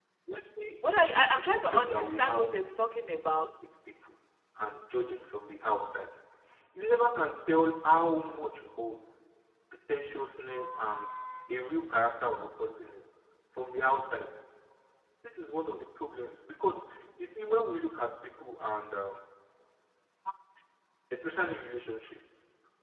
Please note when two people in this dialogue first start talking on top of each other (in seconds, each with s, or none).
1.0 s